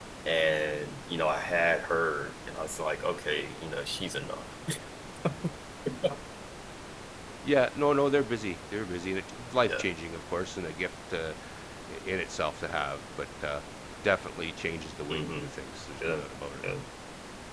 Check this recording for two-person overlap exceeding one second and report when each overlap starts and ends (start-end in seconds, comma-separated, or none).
none